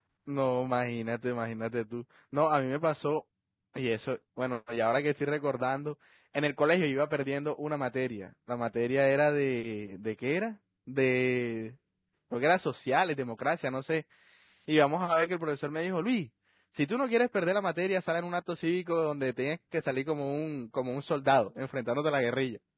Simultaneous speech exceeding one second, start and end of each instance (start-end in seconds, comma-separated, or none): none